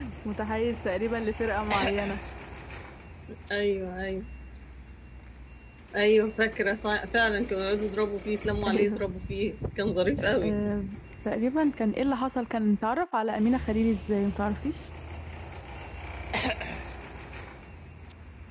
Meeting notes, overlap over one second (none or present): none